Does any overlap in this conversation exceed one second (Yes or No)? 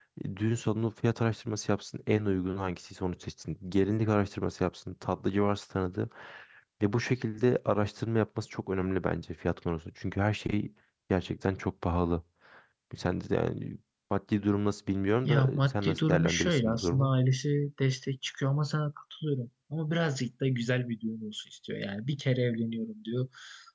Yes